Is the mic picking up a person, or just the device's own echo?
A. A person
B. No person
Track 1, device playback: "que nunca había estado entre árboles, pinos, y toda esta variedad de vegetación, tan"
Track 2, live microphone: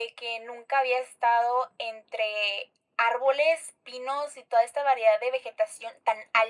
B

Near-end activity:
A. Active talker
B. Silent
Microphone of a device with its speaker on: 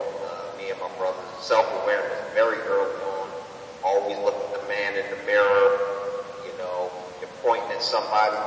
B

